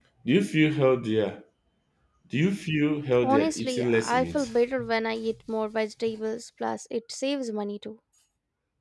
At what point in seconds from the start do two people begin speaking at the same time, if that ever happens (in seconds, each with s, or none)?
3.2 s